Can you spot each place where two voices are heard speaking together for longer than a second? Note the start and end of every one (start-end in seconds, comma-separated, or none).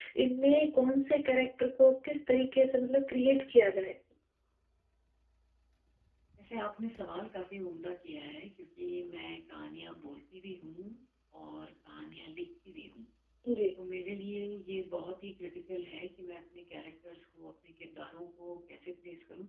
none